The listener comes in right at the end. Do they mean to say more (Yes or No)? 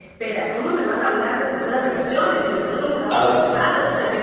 No